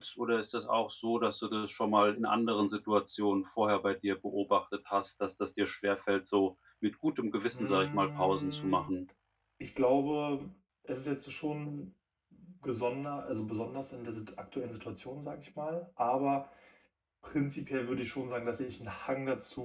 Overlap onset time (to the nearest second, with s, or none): 8 s